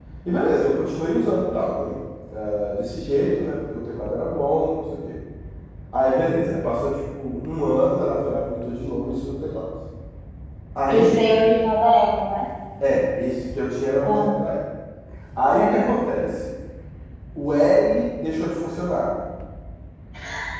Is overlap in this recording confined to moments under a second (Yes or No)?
Yes